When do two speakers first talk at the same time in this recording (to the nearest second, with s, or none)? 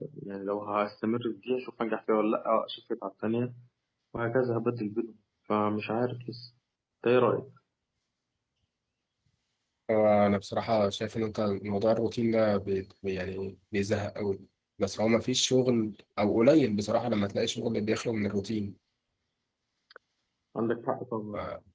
none